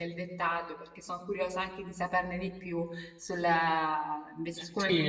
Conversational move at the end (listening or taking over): taking over